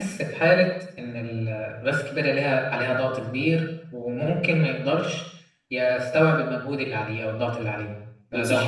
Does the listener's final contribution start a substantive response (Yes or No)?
Yes